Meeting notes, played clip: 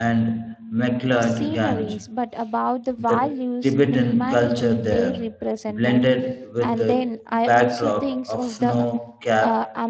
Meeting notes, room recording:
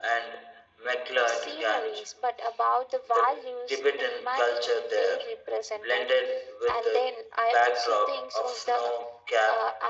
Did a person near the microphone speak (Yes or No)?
No